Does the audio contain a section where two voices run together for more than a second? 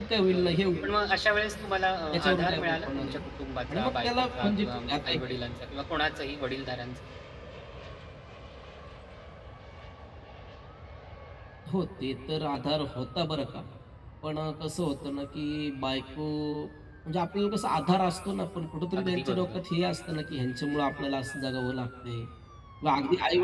Yes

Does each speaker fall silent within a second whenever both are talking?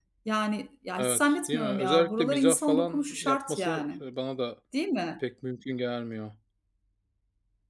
No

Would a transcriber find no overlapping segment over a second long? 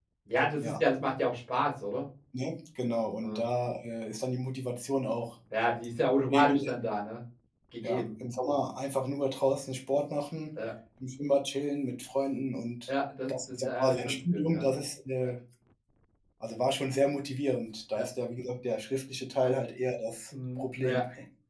No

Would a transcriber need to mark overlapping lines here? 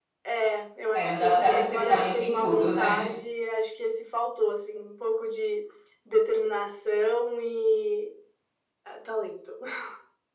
Yes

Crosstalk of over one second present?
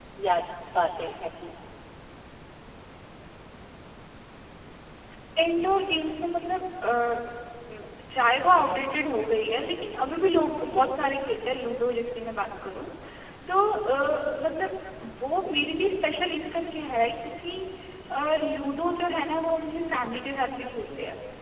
No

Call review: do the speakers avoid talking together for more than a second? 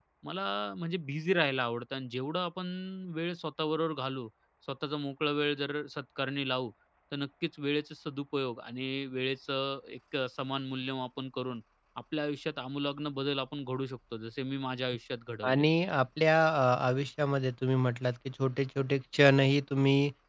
Yes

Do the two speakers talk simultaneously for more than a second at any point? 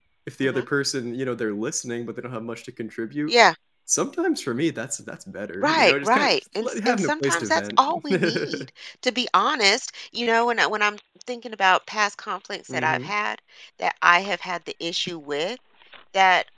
Yes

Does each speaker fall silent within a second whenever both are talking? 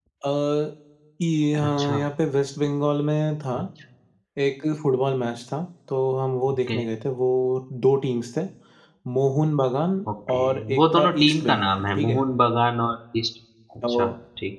No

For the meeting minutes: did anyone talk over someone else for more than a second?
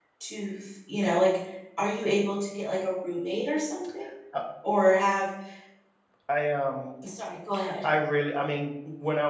No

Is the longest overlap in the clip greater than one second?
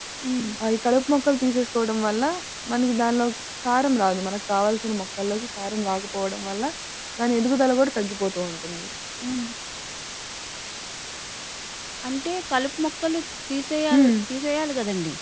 No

